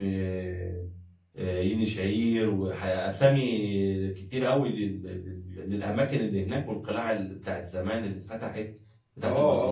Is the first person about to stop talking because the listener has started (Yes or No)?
Yes